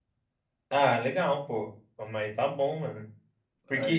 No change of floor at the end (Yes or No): Yes